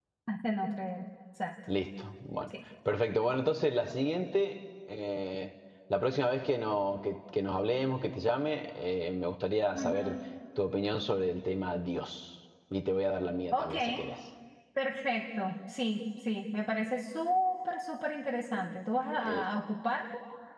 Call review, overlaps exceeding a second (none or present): none